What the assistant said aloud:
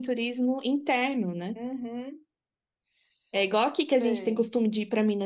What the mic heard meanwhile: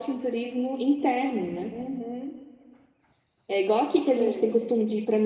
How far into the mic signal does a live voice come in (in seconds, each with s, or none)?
none